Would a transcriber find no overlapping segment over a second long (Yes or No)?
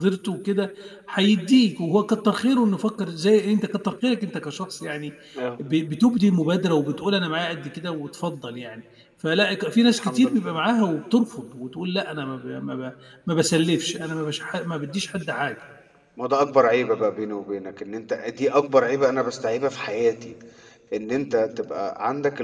Yes